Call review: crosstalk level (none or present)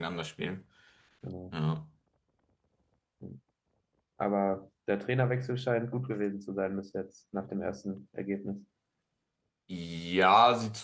none